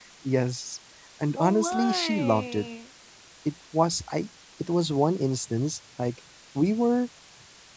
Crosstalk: present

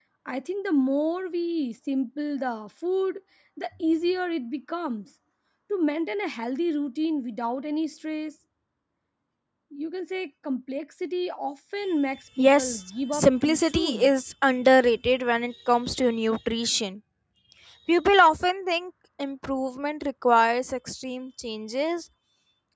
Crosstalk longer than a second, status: present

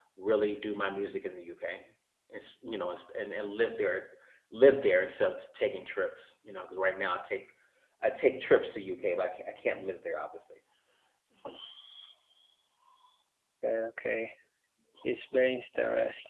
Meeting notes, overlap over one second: none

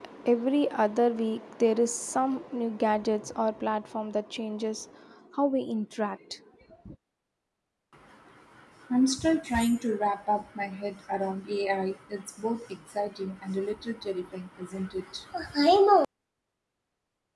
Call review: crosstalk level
none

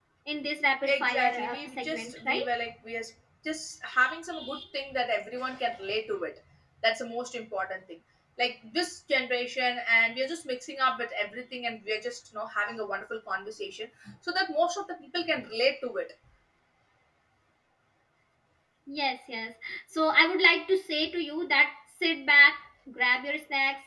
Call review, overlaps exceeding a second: present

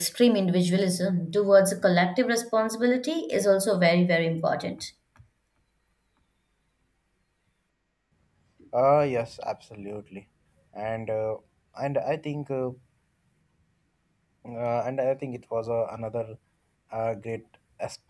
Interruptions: none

